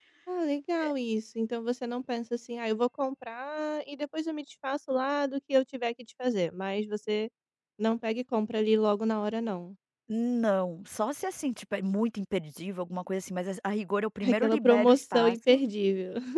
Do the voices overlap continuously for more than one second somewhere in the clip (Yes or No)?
Yes